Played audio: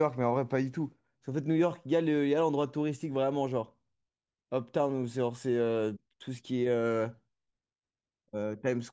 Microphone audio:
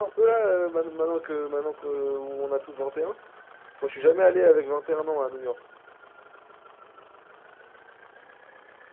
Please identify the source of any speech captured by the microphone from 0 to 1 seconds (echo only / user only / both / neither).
user only